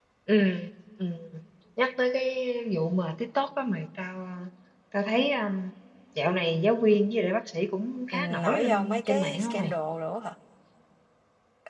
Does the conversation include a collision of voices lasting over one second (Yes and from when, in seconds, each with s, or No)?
Yes, from 8.1 s